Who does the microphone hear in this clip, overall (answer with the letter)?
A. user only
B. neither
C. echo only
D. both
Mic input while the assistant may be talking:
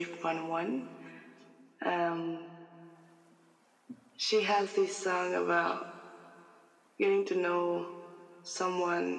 C